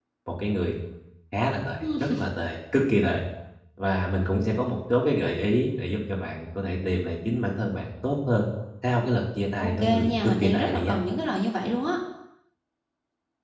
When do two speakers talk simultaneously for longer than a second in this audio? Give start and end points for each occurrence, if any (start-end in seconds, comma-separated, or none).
9.6-10.9